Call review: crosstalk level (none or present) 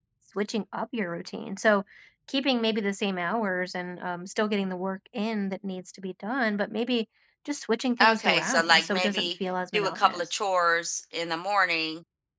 present